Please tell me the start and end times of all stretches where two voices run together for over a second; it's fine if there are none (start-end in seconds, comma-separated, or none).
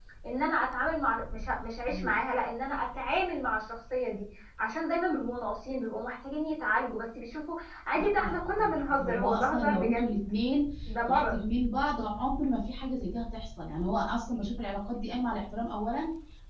7.9-10.1